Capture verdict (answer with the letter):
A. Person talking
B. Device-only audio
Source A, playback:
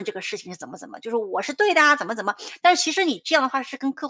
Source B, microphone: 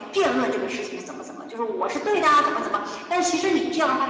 B